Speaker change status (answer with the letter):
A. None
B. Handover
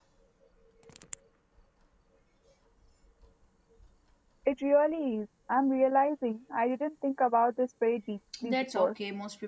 B